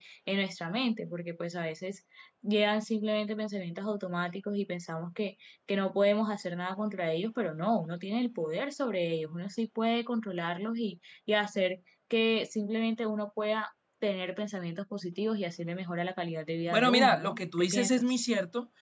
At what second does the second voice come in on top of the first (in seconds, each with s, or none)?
16.7 s